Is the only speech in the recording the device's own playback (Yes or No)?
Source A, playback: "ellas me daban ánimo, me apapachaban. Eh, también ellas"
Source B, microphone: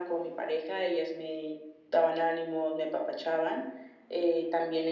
Yes